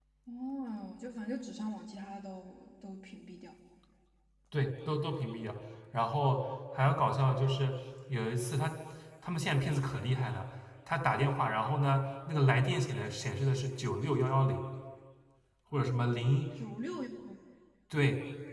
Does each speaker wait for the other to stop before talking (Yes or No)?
Yes